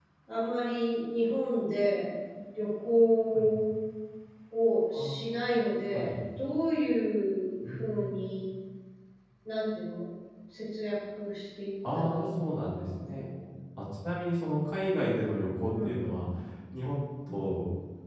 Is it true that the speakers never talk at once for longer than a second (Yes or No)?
No